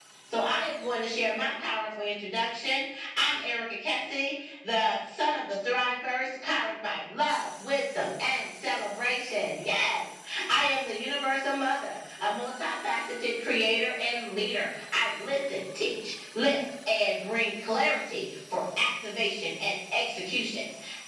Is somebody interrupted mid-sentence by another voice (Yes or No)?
No